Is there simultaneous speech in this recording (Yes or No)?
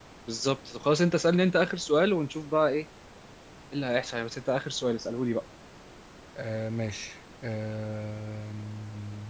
No